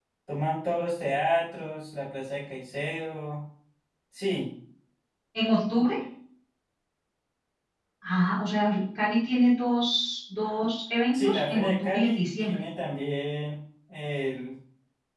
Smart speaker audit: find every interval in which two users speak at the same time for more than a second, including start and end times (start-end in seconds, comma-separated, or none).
11.1-12.6